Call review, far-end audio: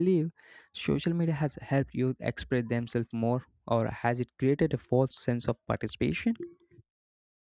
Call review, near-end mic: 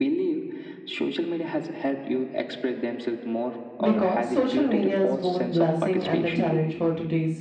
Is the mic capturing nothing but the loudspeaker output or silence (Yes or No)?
No